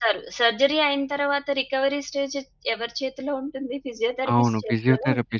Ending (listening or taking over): taking over